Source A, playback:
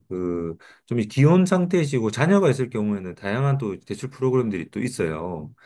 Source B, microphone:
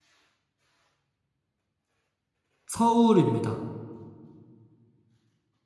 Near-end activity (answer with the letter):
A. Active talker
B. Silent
A